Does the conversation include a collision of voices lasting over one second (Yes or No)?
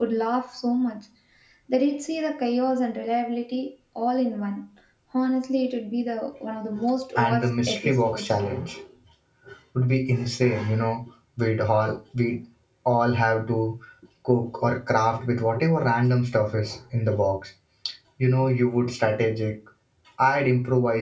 Yes